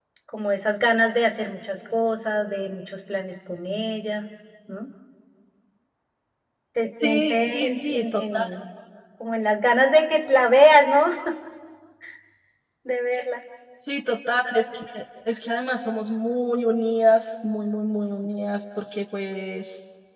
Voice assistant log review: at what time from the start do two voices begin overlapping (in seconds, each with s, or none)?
7.0 s